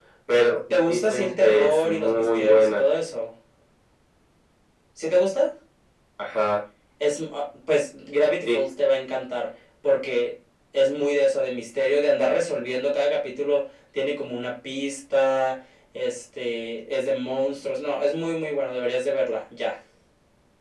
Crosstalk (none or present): present